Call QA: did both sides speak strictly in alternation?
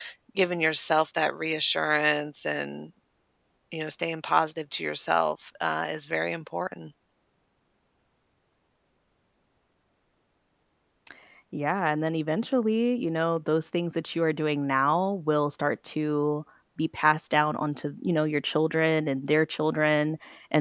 Yes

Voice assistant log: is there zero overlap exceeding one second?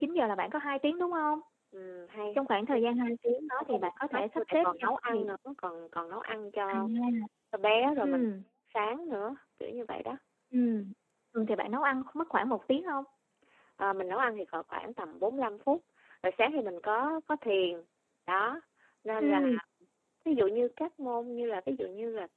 No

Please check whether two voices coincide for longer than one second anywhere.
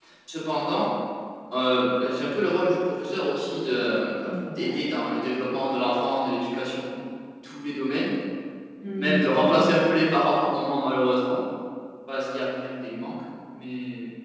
Yes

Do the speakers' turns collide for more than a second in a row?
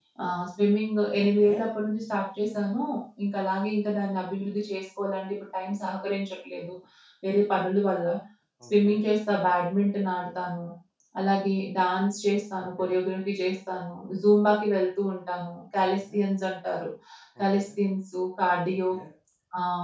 No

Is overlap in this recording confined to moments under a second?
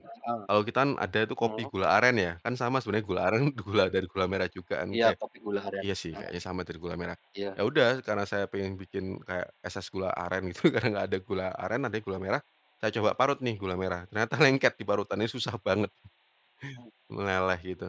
Yes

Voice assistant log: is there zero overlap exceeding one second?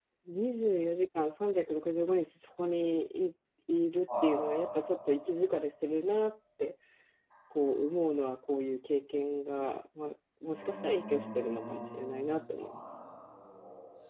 No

